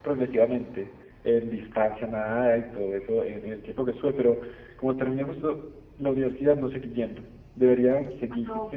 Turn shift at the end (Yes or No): No